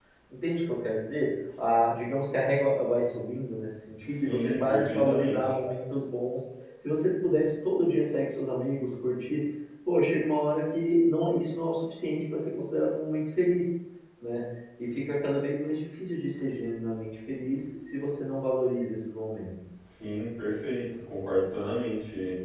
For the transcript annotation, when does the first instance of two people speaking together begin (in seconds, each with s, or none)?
4.0 s